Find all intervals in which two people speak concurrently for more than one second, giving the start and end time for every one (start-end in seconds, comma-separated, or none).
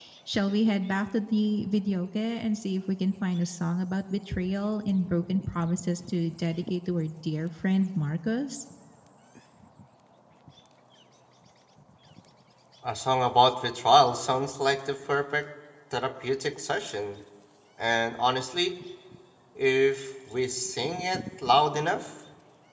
none